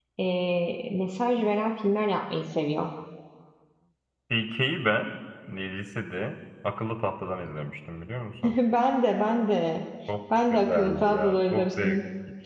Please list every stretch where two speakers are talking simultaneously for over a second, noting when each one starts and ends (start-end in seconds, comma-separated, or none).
10.5-12.0